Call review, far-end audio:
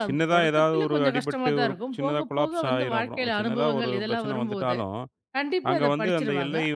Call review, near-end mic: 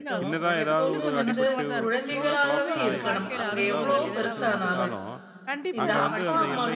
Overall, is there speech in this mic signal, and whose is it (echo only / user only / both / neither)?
both